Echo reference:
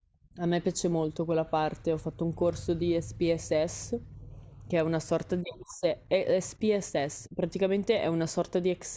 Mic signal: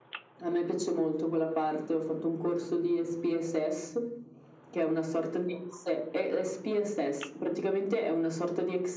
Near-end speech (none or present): none